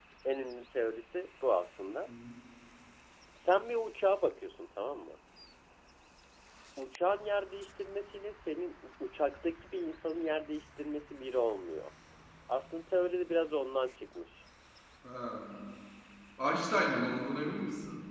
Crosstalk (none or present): none